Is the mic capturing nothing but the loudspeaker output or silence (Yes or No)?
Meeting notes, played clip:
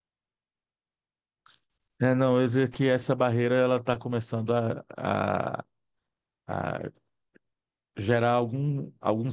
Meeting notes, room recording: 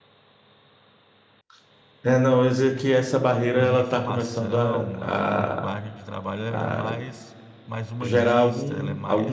No